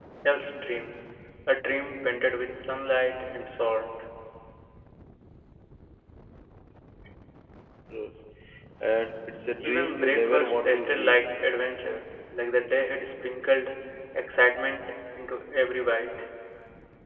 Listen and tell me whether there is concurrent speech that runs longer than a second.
Yes, from 9.6 s

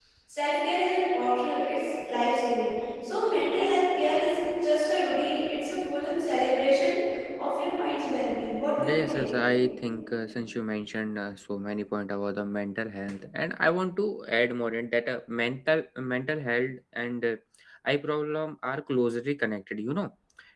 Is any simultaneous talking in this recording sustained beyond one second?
No

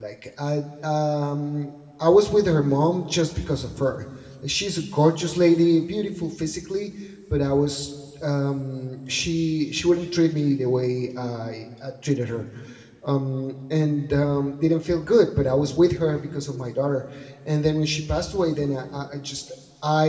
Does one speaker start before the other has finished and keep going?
No

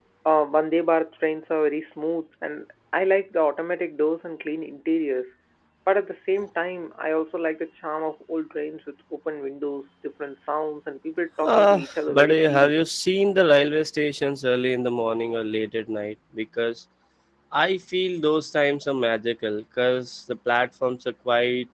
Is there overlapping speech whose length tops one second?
Yes, from 11.4 s

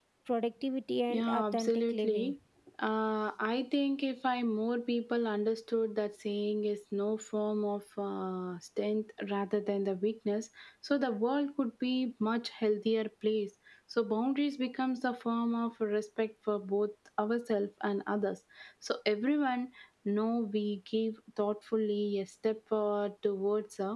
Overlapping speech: Yes, from 1.1 s

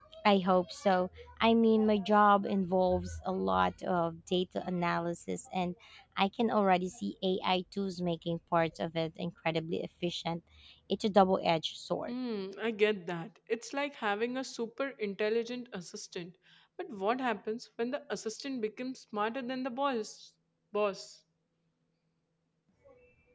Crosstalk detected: No

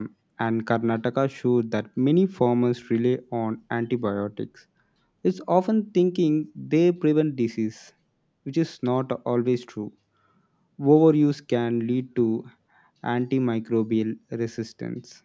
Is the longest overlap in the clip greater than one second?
No

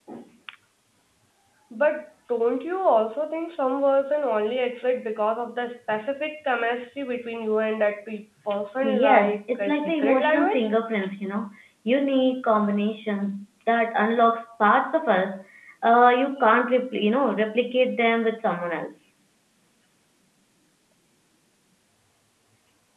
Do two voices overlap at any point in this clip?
Yes, from 8.8 s

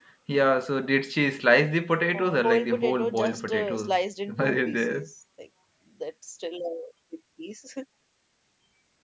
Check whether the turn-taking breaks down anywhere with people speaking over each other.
Yes, from 2.1 s

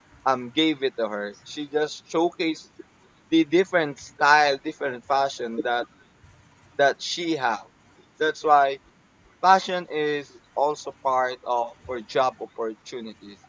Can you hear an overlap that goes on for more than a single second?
No

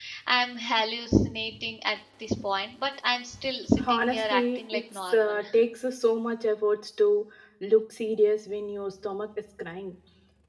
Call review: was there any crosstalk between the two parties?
Yes, from 3.8 s

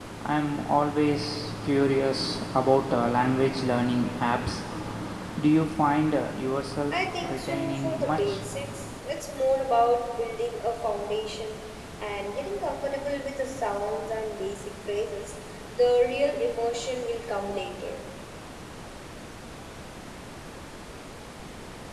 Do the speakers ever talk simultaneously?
Yes, from 6.9 s

